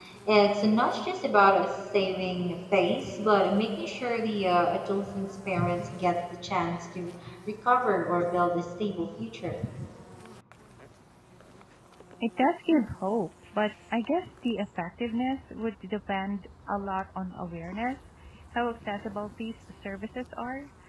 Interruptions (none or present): none